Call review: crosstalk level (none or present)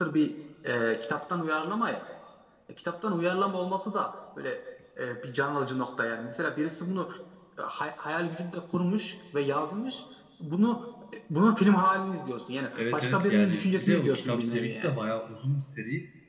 present